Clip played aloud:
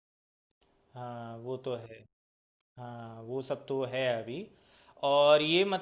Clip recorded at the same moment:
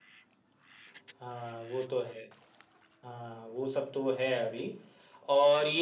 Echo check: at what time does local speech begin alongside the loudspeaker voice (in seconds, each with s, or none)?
none